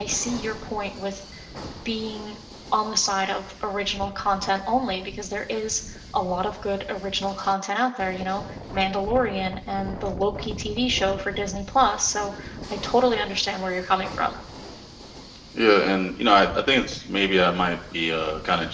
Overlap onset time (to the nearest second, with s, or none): none